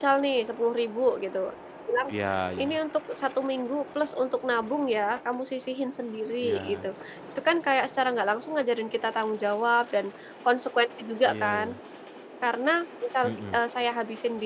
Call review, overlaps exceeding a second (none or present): none